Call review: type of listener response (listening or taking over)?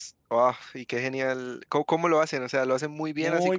taking over